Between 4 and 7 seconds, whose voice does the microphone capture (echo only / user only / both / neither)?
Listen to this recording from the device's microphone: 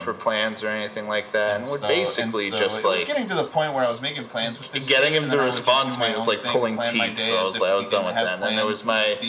both